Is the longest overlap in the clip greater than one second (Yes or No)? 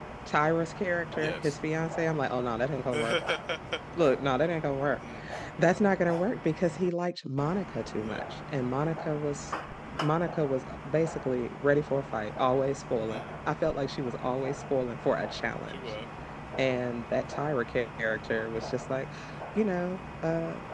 No